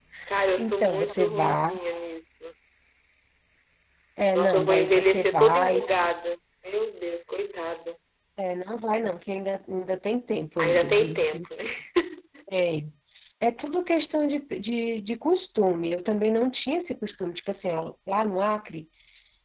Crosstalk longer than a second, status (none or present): present